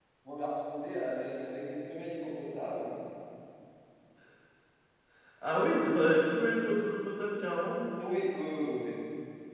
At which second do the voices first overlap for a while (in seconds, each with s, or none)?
none